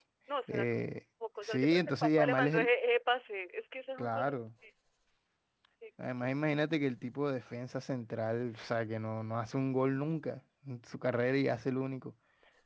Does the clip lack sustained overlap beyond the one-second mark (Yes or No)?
No